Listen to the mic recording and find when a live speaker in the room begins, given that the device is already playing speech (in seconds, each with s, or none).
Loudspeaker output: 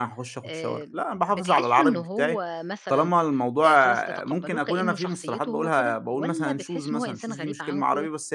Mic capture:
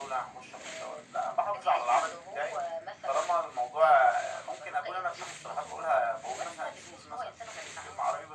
none